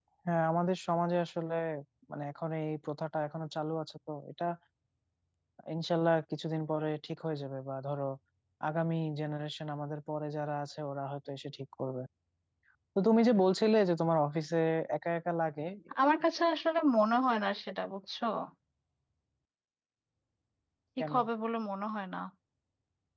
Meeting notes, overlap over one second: none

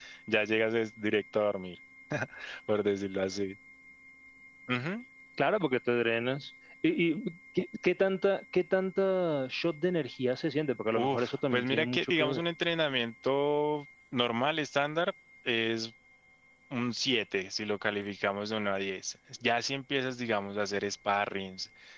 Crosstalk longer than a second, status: present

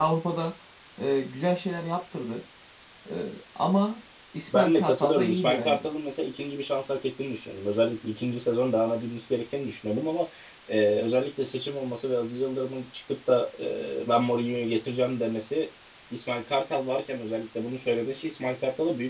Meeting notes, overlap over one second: present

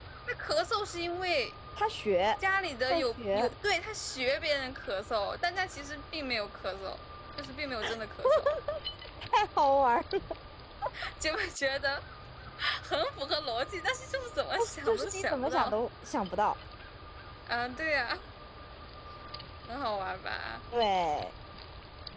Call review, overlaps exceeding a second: present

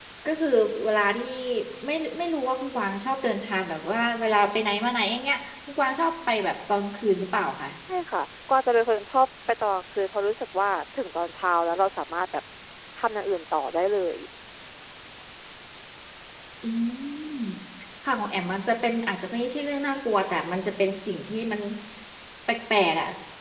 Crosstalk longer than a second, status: none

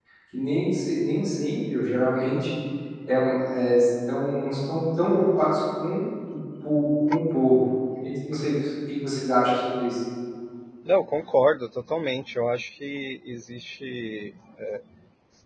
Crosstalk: none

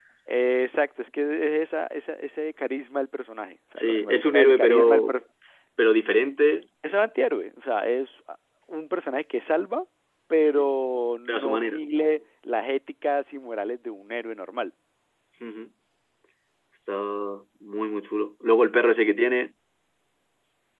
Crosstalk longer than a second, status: present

